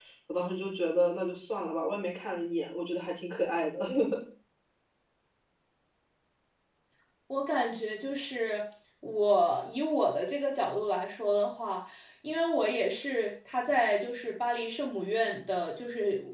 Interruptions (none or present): none